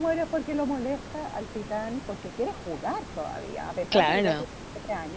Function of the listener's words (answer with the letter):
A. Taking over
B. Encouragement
B